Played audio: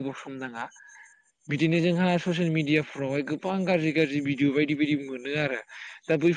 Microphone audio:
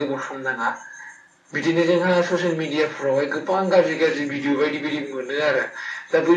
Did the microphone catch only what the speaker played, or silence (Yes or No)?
Yes